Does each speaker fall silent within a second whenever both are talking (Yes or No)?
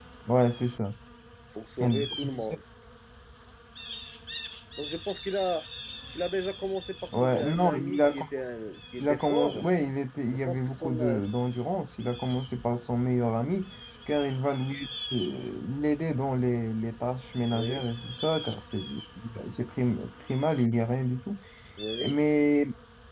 No